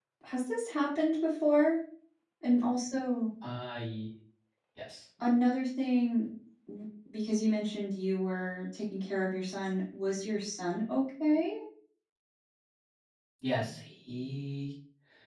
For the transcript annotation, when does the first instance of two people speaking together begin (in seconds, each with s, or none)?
none